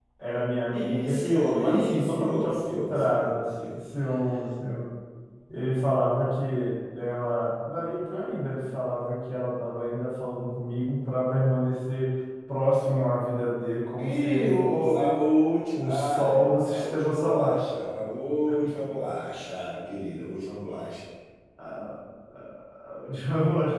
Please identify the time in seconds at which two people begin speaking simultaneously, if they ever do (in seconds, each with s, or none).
0.7 s